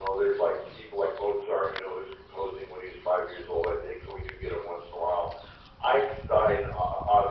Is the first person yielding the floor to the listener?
No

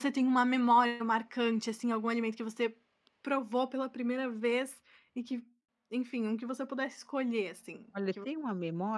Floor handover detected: Yes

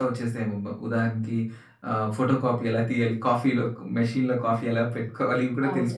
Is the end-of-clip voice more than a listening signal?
Yes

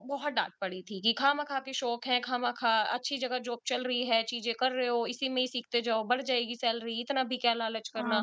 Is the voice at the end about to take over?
Yes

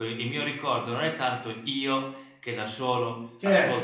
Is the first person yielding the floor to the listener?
No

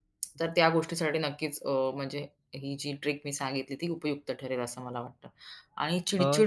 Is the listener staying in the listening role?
Yes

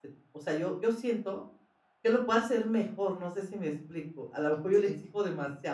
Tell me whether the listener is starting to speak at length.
No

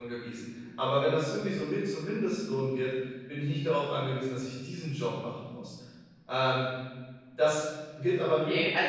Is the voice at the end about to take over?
Yes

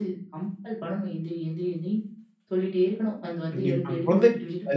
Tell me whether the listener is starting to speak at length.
Yes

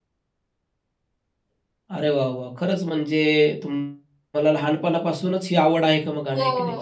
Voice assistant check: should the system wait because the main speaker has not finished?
No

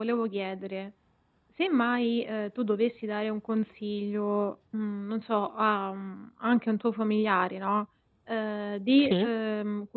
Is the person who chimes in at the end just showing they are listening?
Yes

